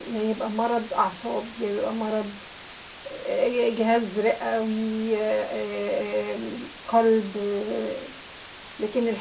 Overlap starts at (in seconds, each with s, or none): none